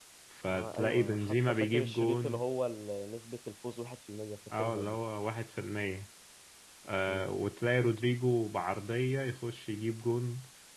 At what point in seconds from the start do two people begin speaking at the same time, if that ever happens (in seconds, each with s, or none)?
0.5 s